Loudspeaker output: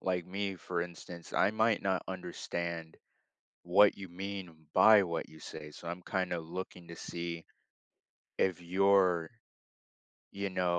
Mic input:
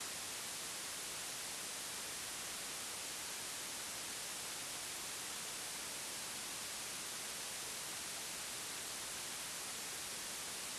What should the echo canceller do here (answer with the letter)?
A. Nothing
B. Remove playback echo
A